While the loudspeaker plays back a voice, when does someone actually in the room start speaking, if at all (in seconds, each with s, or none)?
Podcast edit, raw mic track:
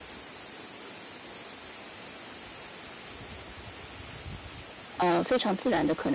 5.0 s